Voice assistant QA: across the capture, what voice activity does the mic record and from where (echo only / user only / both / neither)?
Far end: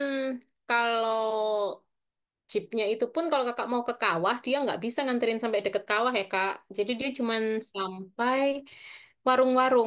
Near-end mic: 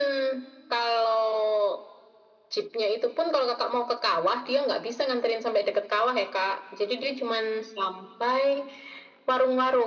echo only